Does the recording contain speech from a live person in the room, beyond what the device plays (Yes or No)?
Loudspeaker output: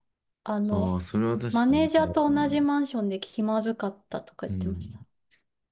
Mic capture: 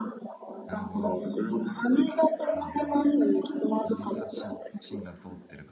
Yes